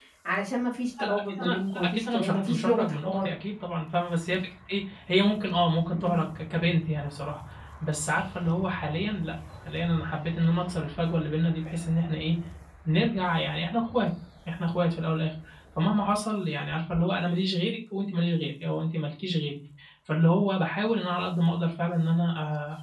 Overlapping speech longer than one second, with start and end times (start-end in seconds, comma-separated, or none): 1.0-3.3